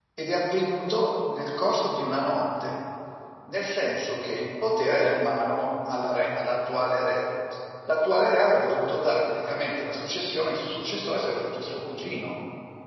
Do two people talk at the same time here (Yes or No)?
No